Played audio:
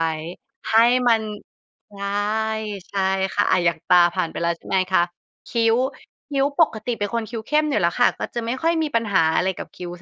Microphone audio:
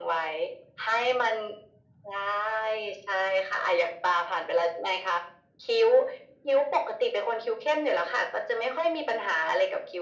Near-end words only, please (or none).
none